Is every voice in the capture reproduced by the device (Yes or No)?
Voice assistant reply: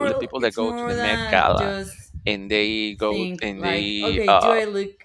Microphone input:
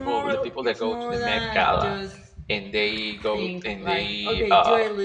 Yes